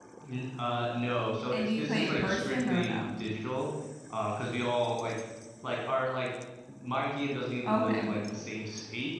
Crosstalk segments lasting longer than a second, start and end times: 1.5-3.1

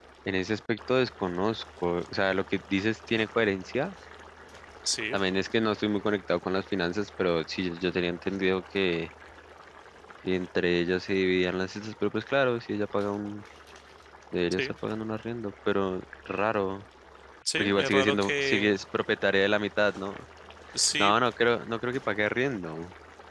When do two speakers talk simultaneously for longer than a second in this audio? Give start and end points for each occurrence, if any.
17.6-18.8

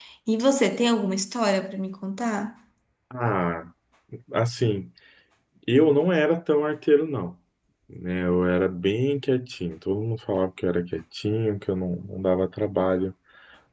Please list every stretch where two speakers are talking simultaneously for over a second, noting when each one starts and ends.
none

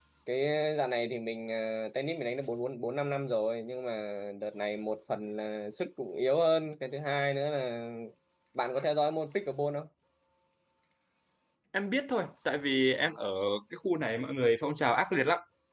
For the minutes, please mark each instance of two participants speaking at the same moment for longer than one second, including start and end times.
none

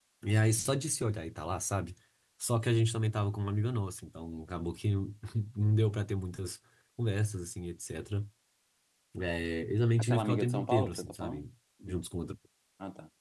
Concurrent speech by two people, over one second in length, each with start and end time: 10.0-11.4

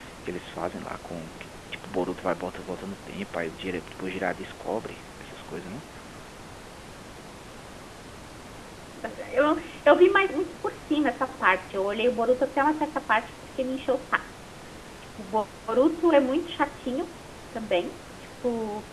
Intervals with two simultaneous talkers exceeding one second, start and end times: none

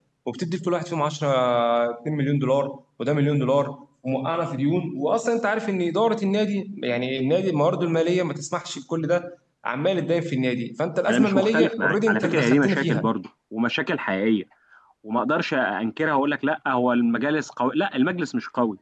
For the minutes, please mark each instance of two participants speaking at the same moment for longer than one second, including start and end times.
11.1-13.1

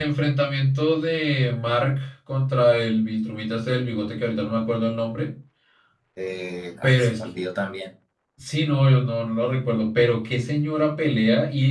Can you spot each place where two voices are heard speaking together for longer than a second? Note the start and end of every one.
none

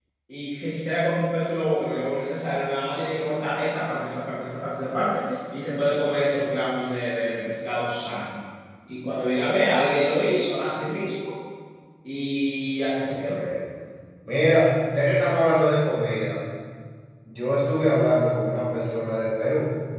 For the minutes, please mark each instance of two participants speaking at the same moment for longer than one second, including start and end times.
none

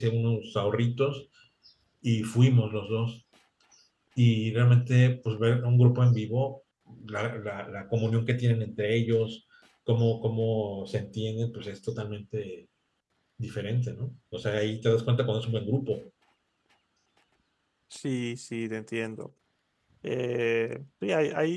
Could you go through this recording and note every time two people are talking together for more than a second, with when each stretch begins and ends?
none

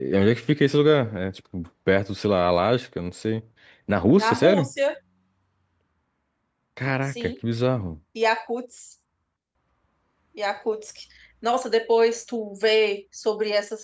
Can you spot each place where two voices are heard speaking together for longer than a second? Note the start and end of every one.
none

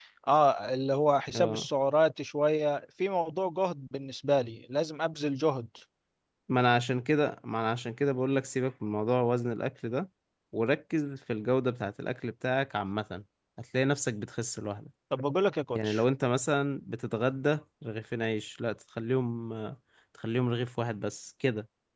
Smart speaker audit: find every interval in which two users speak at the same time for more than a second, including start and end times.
none

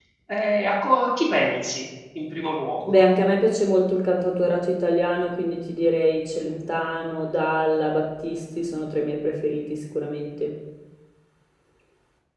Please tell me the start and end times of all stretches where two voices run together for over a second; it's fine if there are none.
none

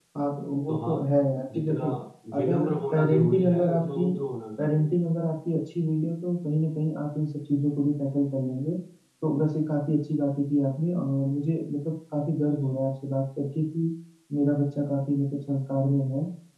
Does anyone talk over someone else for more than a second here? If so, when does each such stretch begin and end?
2.4-4.1

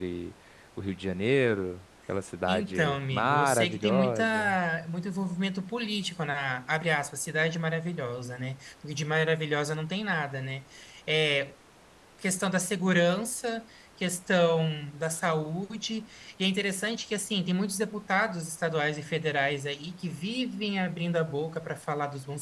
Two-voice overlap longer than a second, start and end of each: 2.5-4.6

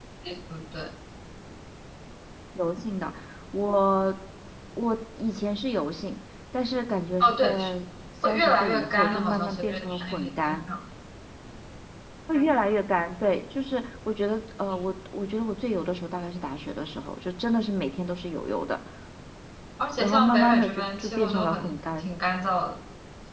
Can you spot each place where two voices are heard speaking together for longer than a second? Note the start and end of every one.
8.2-10.6, 20.0-22.1

